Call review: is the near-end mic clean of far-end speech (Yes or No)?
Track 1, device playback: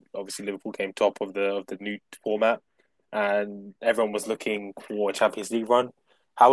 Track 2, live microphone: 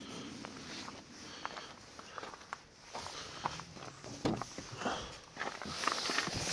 Yes